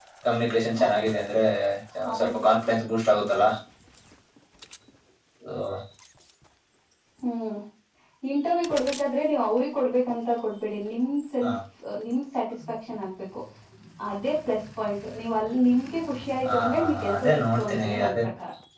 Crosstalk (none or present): present